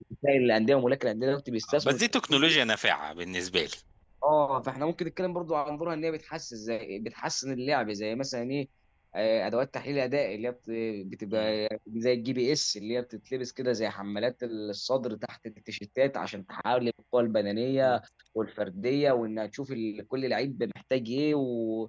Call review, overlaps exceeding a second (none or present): none